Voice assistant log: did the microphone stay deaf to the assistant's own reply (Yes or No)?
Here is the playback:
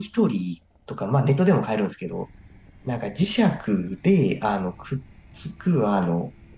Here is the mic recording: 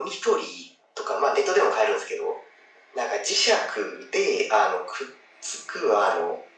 No